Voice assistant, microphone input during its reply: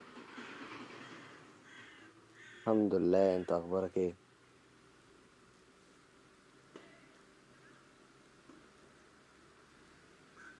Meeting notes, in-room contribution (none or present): present